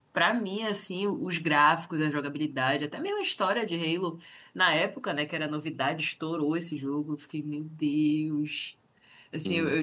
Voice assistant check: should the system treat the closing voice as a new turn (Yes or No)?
No